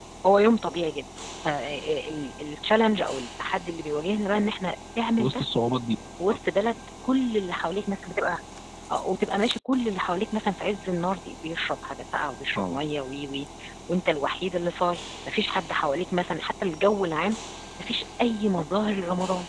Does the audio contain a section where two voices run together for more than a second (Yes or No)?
No